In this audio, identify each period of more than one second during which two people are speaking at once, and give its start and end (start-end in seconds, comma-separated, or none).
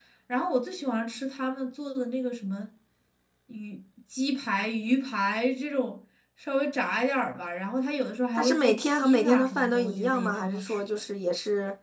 8.3-10.8